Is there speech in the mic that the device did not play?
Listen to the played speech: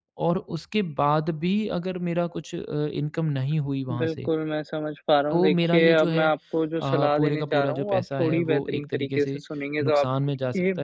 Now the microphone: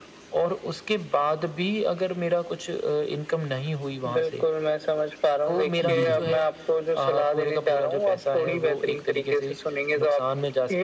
Yes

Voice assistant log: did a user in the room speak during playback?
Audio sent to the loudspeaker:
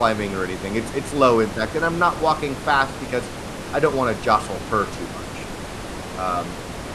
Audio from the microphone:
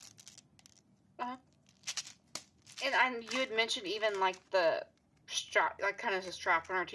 Yes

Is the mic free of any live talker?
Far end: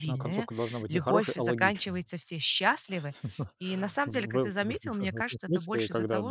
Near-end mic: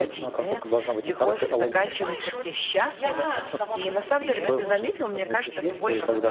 No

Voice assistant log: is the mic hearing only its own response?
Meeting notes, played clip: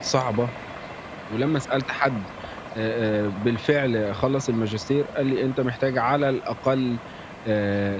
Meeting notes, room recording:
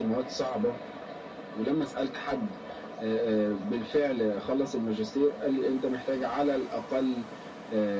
Yes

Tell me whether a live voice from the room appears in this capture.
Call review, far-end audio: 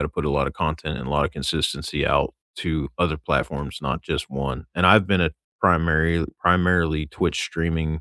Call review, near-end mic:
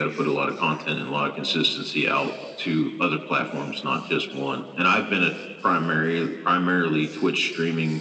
No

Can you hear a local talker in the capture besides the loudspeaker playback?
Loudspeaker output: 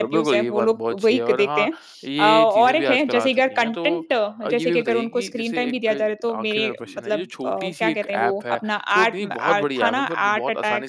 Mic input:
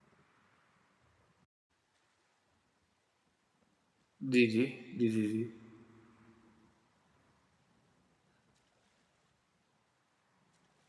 Yes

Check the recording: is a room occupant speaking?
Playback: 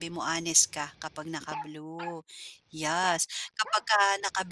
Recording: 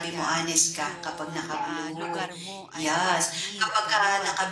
Yes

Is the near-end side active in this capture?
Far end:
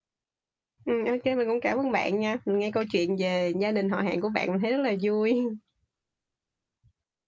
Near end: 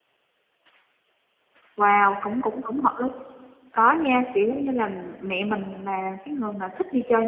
Yes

